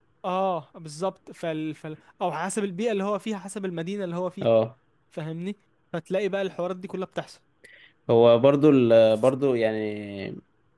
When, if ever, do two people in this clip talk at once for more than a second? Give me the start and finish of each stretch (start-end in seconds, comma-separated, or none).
none